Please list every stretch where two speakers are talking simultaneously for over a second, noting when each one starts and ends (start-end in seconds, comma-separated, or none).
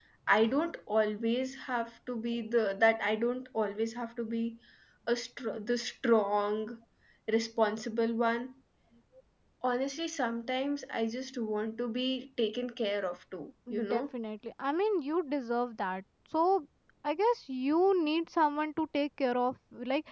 none